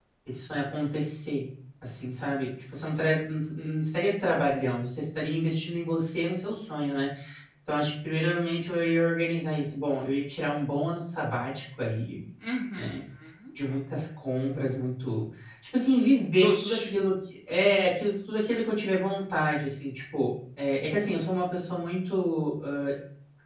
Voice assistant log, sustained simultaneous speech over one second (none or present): none